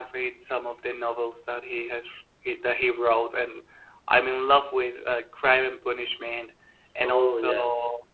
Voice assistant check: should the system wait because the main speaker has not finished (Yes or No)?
Yes